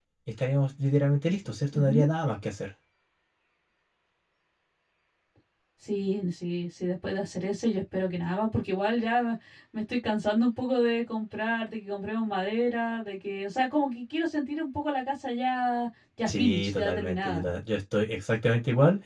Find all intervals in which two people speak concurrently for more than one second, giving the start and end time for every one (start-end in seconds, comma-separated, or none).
16.3-17.5